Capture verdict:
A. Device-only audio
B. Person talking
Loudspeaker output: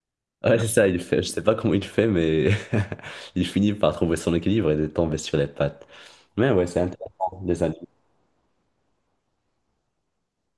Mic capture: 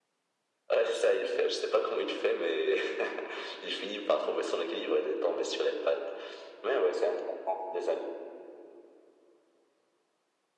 A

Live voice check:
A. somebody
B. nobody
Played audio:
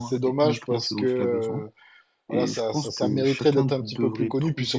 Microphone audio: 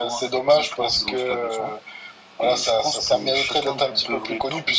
B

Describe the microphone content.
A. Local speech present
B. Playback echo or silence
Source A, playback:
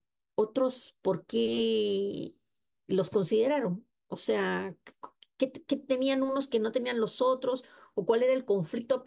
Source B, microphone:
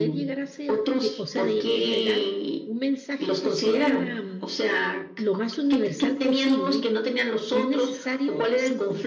A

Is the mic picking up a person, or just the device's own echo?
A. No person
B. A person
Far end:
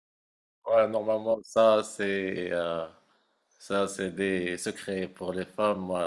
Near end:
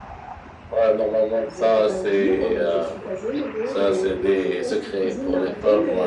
B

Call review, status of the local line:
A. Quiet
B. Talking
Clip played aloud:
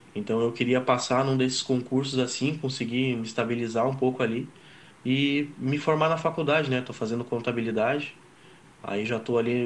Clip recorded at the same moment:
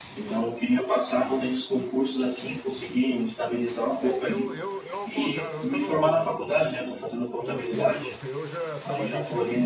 B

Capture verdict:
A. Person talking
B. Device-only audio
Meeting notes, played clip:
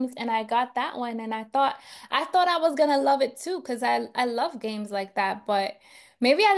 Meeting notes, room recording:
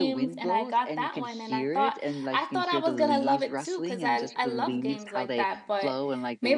A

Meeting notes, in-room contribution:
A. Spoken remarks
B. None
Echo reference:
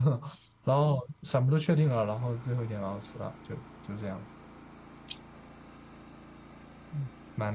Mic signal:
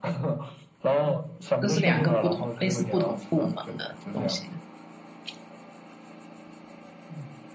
A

